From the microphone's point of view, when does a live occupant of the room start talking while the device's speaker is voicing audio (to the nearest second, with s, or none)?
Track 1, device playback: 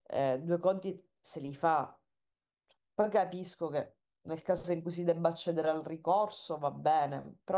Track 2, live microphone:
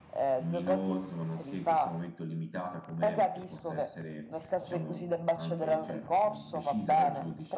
0 s